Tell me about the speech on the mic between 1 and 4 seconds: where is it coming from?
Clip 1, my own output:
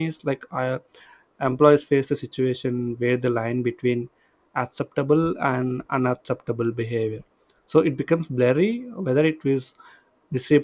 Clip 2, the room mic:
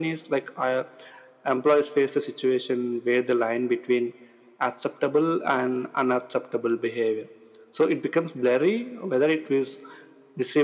echo only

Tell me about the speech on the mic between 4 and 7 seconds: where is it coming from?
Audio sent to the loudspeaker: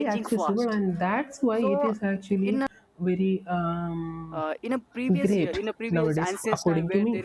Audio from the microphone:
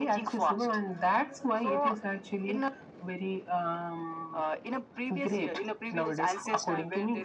echo only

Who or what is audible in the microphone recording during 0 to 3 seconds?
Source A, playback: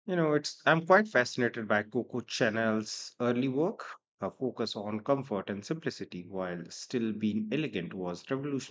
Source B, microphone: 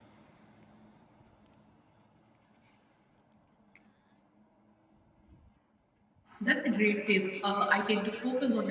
neither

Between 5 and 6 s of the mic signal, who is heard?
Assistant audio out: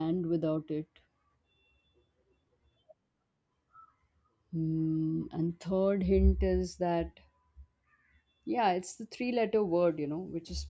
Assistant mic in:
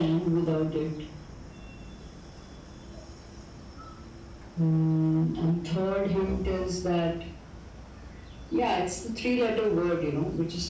echo only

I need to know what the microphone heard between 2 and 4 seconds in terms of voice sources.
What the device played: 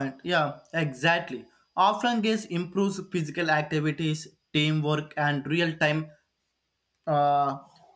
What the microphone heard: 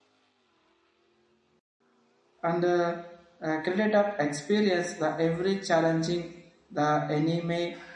user only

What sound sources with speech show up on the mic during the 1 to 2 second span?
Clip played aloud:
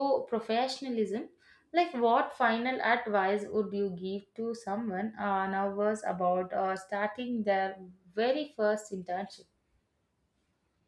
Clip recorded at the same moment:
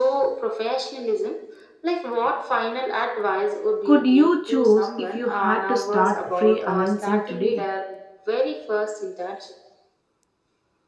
echo only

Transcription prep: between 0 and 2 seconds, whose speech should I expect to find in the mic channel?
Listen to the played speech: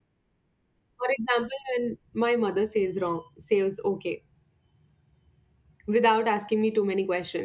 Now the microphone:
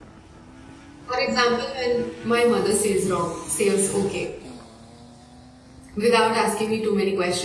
echo only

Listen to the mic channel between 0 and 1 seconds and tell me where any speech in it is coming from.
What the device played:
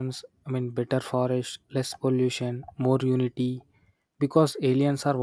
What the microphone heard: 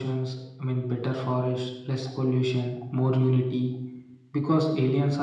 echo only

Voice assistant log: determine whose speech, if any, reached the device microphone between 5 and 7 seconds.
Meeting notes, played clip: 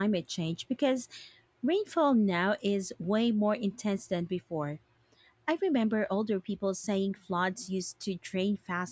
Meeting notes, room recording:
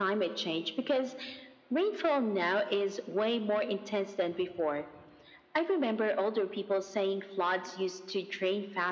echo only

